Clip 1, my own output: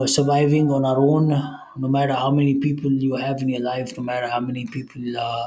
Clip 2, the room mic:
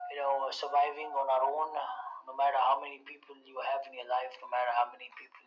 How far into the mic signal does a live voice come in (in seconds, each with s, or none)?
none